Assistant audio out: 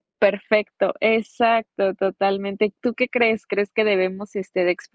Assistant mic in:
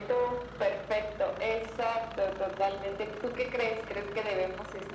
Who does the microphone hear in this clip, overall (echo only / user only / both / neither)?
echo only